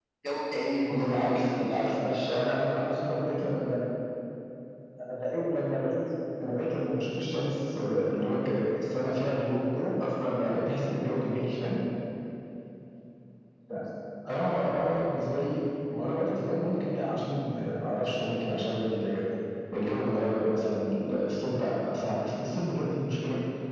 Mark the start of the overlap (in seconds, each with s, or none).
0.9 s